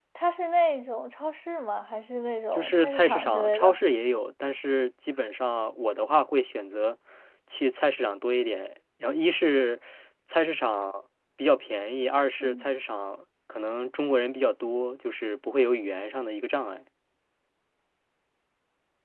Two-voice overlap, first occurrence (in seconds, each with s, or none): 2.5 s